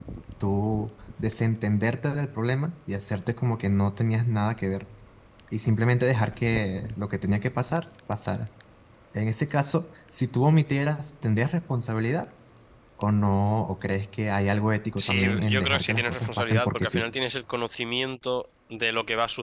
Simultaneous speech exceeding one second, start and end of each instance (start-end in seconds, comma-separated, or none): 15.0-17.0